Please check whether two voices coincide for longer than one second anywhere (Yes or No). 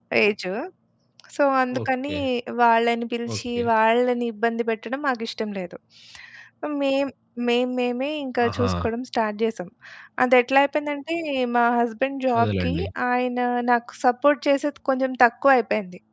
No